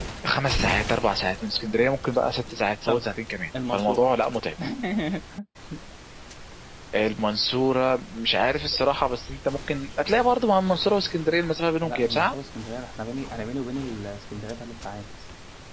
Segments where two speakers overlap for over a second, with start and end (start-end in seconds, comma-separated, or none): none